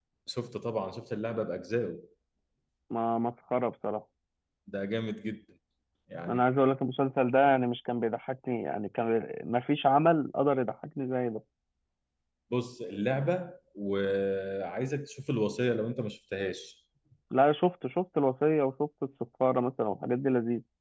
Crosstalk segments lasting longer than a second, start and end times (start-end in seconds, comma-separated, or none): none